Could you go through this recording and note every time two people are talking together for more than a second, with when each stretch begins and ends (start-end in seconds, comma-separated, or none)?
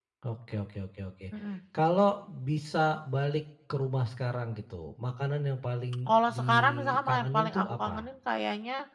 6.1-8.1